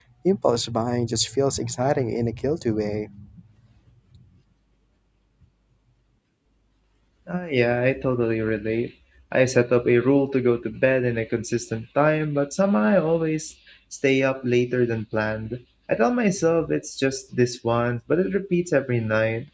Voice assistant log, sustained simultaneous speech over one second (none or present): none